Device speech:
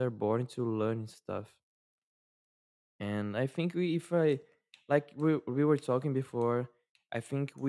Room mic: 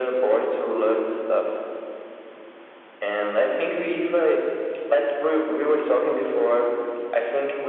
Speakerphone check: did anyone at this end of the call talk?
No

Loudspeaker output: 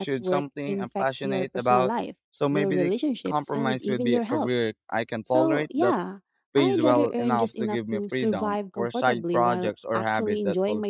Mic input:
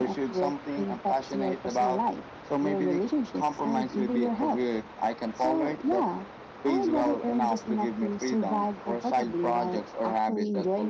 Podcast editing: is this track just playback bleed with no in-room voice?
Yes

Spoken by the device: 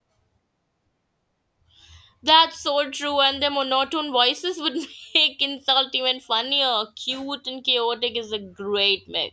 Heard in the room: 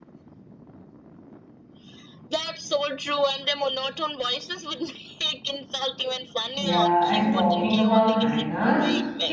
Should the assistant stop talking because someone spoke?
Yes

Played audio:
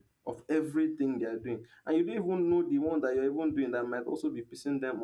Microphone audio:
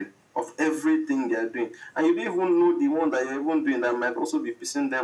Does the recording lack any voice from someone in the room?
Yes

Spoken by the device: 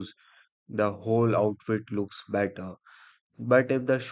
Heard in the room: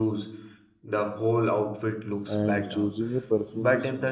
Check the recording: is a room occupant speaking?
Yes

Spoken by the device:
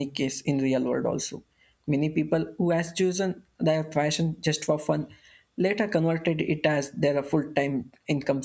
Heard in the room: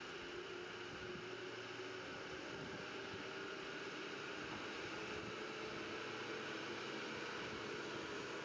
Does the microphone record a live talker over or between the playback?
No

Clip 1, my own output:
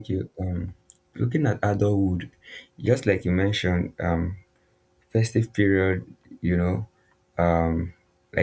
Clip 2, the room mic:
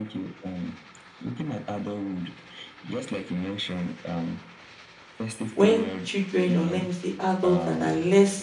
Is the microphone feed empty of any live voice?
No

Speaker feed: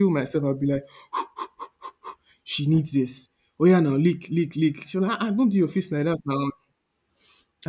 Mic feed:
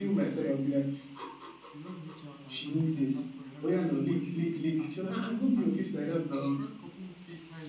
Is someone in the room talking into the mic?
Yes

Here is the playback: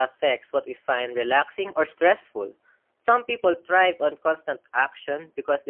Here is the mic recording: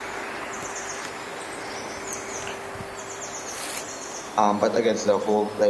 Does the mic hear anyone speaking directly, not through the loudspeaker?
Yes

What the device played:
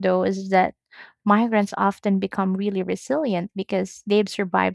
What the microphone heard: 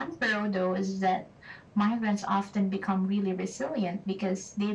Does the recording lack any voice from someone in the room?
Yes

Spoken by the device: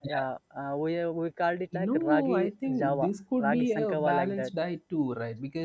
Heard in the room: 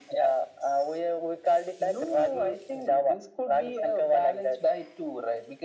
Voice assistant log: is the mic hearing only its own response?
Yes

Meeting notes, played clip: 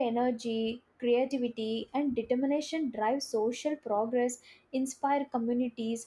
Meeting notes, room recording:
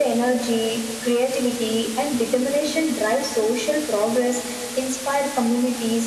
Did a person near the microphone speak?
No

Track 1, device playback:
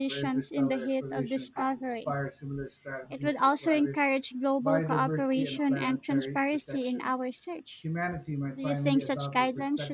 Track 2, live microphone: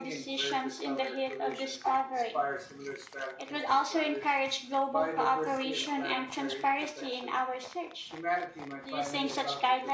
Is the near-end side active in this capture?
No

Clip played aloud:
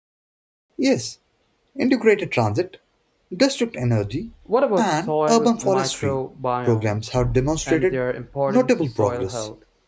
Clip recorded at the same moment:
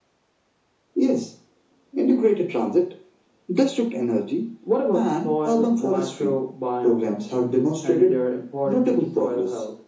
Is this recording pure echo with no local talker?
Yes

